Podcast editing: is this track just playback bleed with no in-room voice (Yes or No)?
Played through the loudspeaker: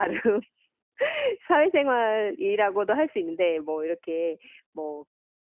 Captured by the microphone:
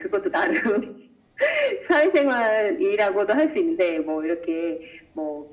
Yes